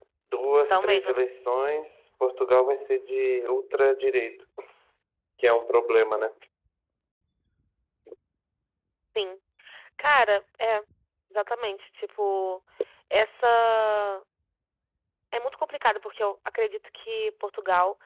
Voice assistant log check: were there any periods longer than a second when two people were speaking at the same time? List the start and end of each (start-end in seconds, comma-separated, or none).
none